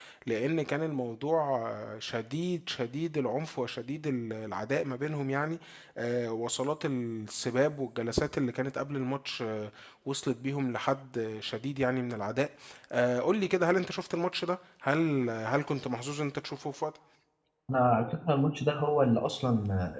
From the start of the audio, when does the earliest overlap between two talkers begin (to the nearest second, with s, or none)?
none